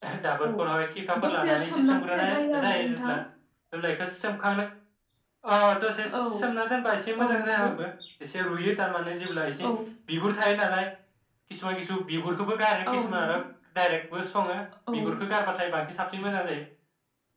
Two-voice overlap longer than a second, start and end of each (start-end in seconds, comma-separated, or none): 1.2-3.1